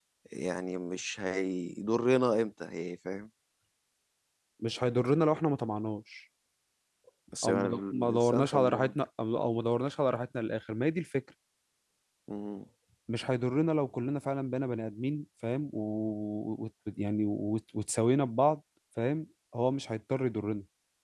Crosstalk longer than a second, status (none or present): present